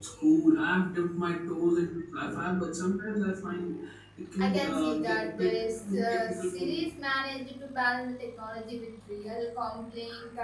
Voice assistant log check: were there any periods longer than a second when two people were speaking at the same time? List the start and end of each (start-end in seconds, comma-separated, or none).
4.4-6.9